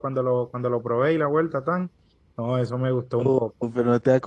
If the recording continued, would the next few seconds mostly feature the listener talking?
Yes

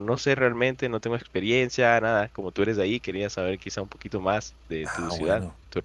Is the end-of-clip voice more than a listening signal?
Yes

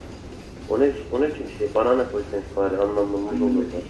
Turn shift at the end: Yes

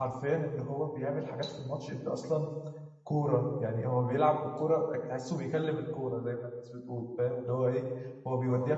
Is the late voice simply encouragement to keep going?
Yes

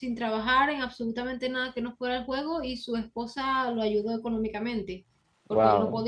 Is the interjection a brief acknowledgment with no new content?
Yes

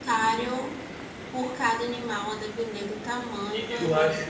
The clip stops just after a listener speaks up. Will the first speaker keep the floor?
No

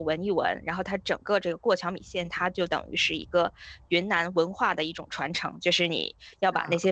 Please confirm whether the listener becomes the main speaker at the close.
No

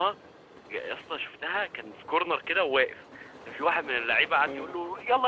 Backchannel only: Yes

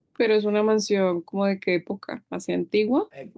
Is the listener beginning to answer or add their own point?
Yes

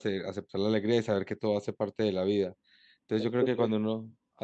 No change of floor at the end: Yes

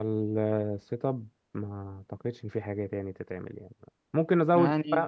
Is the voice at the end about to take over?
No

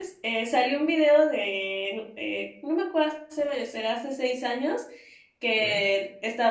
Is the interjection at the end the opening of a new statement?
No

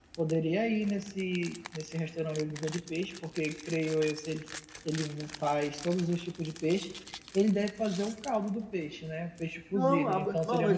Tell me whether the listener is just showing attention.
No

